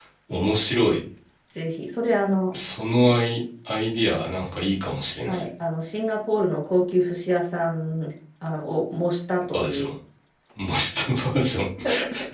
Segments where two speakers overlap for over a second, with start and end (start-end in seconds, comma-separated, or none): none